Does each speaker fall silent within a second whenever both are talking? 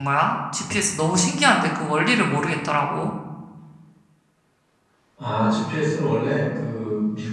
Yes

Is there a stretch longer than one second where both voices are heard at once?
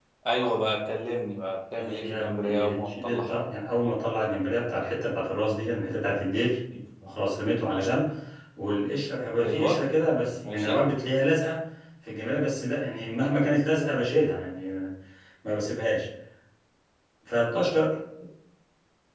Yes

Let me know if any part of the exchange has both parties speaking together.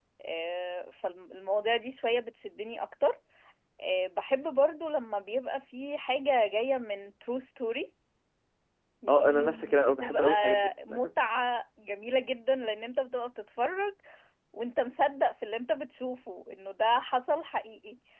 Yes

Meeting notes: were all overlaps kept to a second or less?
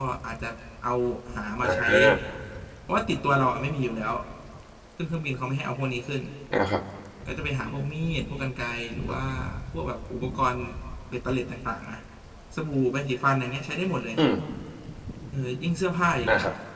Yes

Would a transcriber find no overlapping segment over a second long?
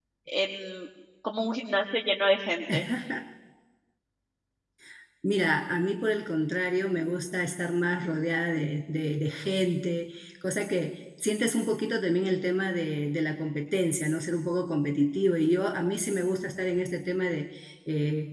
Yes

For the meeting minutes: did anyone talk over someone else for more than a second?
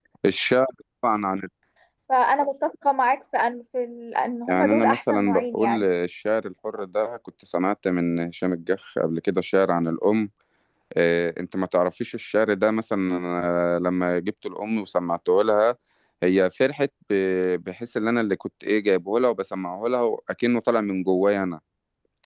Yes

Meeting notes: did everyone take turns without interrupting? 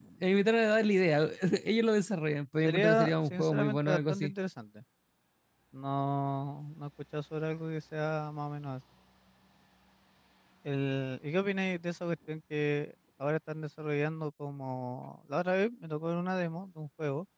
No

